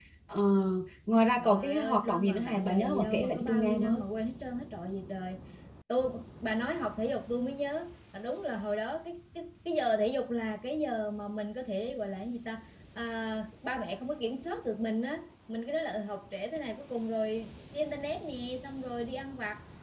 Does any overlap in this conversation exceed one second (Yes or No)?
Yes